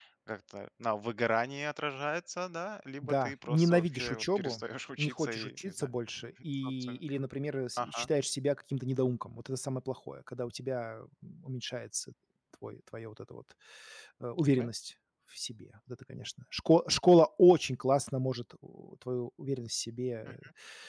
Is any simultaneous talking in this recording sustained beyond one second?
Yes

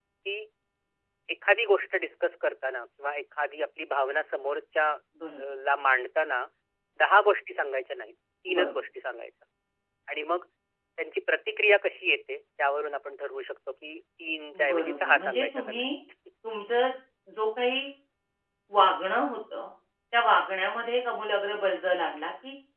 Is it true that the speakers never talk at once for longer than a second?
No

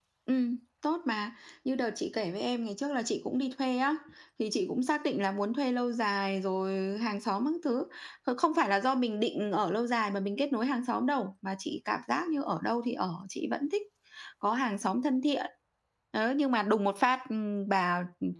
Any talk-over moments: No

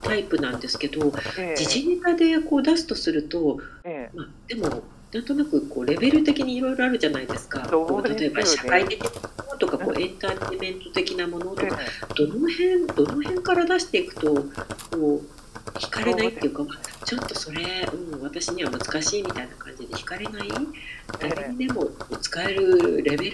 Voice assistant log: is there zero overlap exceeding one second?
No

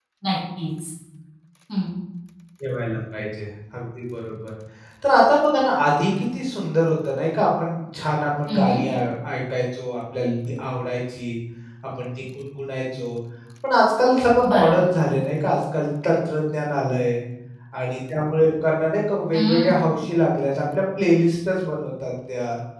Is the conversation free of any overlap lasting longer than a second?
Yes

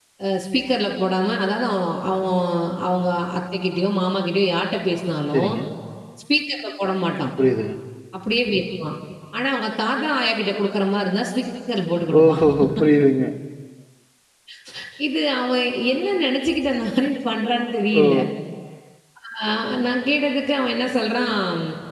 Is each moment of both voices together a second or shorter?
Yes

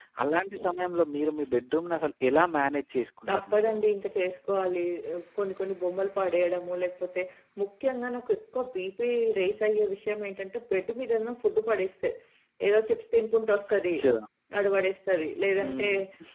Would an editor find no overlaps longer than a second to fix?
Yes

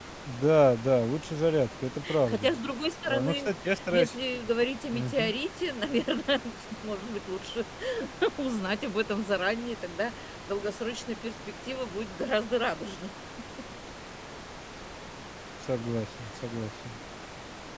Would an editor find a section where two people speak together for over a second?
No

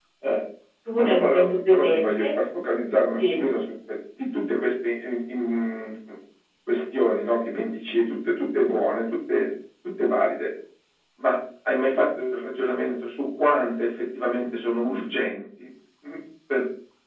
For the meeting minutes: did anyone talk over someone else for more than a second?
Yes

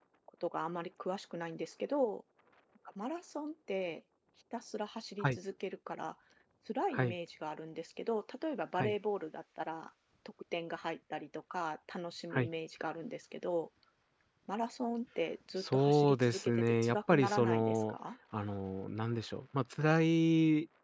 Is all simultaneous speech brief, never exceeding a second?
No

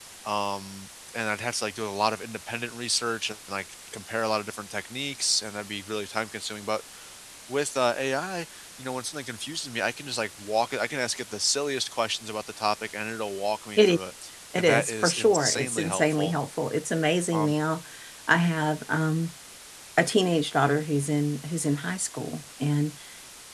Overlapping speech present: Yes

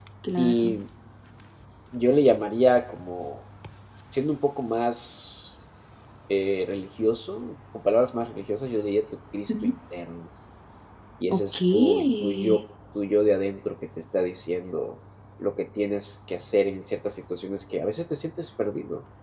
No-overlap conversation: No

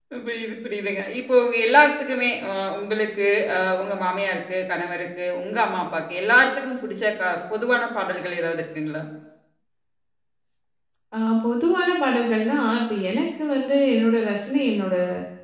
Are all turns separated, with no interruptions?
Yes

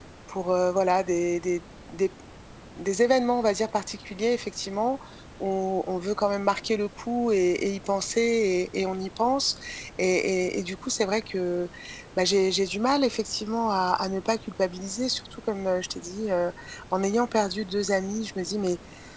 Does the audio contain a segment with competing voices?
No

